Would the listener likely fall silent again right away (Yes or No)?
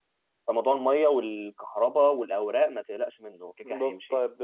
No